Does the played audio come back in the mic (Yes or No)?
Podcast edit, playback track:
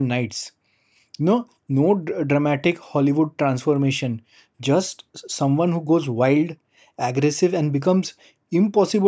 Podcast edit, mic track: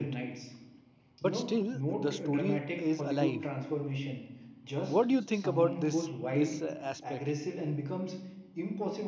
Yes